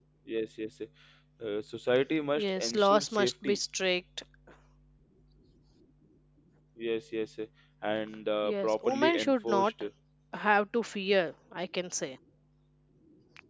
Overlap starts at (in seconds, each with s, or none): 2.4 s